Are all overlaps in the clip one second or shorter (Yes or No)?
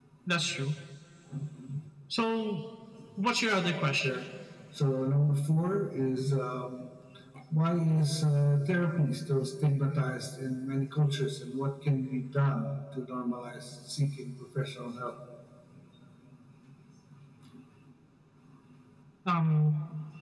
Yes